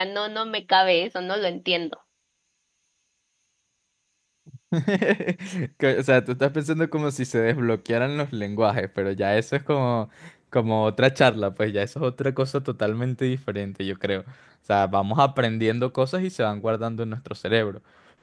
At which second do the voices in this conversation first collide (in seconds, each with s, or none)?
none